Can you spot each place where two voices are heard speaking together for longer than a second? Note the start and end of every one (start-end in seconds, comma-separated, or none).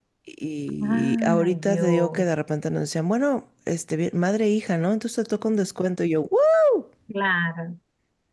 0.8-2.3